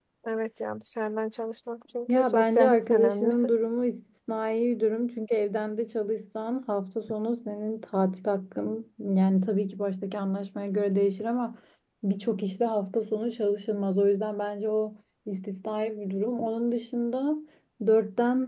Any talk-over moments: Yes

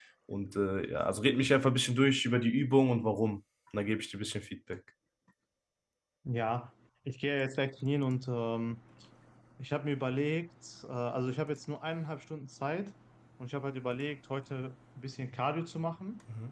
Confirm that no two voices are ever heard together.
Yes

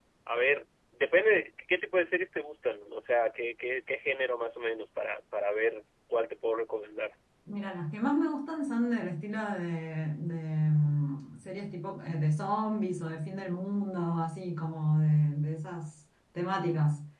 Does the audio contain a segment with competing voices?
No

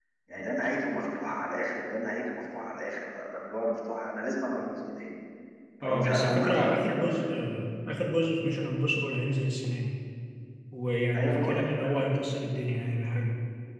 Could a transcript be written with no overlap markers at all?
No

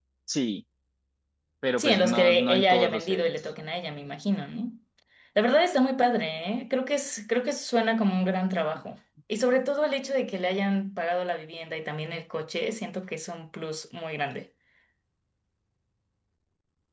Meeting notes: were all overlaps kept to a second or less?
No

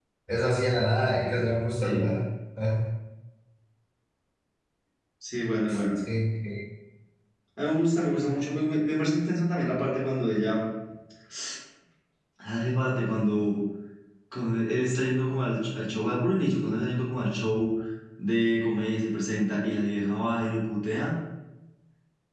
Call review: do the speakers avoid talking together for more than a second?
Yes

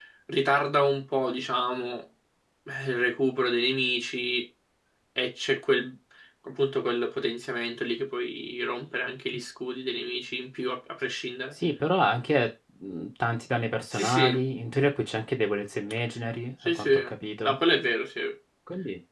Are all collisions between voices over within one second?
Yes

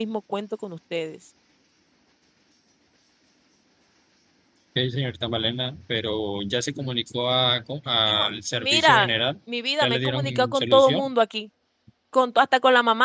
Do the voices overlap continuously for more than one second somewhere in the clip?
Yes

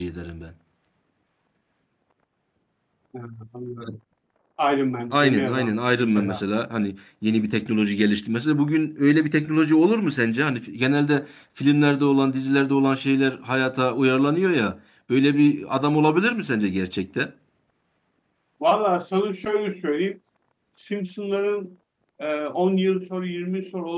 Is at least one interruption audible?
Yes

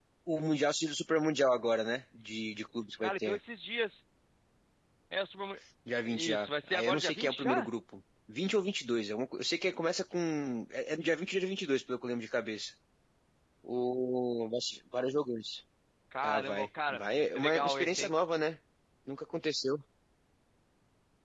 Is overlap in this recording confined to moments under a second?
No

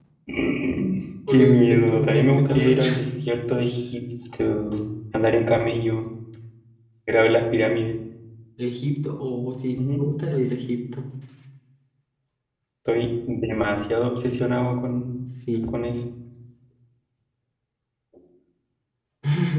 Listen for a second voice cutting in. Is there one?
Yes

